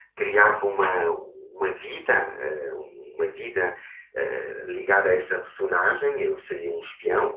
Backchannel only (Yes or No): Yes